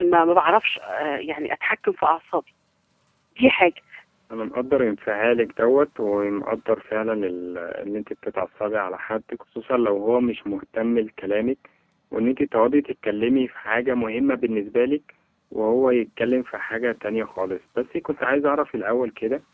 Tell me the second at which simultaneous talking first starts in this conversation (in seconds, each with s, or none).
none